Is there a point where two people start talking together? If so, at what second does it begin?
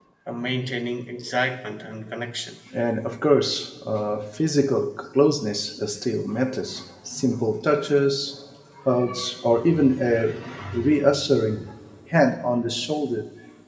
none

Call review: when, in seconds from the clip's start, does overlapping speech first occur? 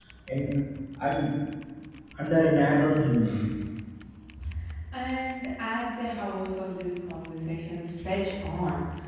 none

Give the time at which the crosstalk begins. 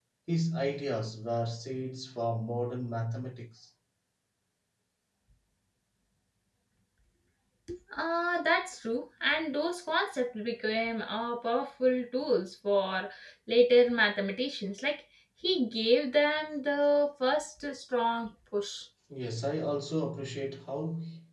none

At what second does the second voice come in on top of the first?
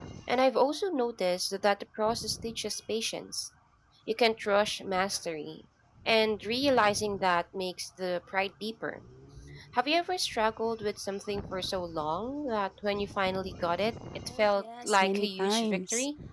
14 s

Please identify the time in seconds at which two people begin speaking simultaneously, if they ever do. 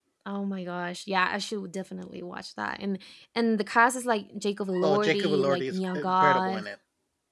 5 s

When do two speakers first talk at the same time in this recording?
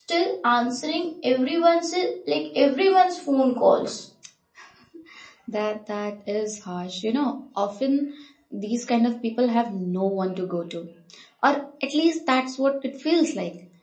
none

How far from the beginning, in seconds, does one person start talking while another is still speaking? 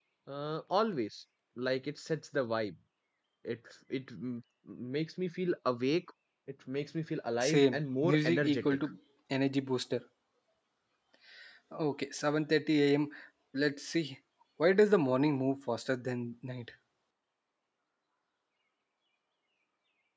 7 s

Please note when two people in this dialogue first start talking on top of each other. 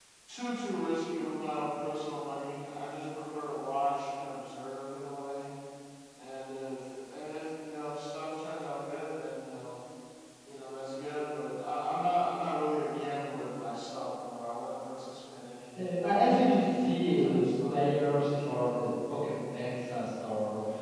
16 s

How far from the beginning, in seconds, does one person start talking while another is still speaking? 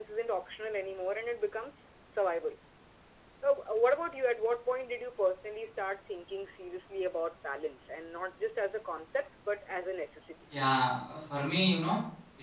none

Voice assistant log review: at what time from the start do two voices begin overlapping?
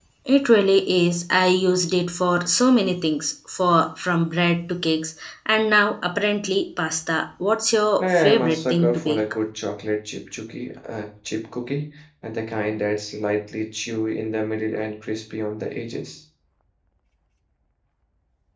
8 s

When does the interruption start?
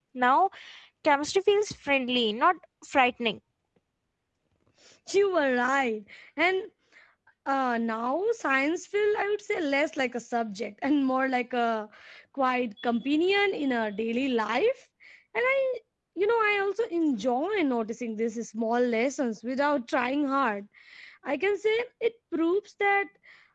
none

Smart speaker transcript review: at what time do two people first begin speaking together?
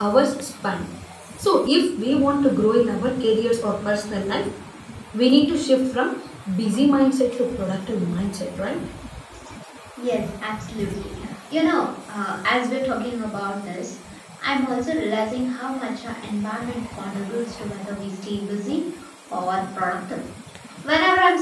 none

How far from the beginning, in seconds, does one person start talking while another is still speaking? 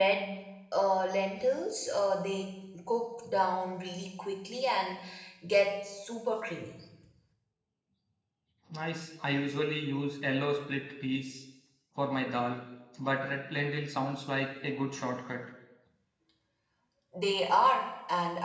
none

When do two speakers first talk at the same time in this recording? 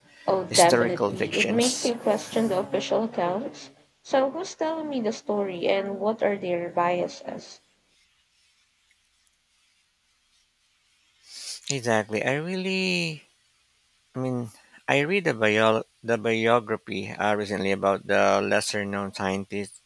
1 s

